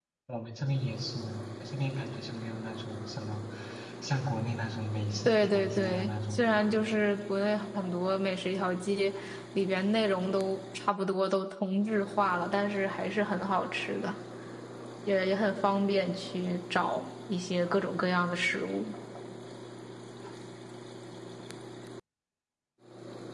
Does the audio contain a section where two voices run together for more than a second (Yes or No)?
Yes